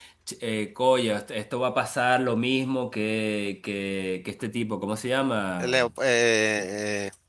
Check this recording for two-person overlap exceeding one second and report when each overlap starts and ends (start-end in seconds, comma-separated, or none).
none